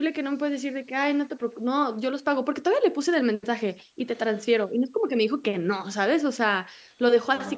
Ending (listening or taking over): listening